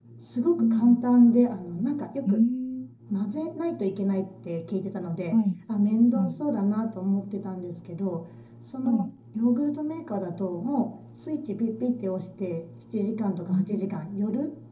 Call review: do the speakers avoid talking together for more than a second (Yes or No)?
Yes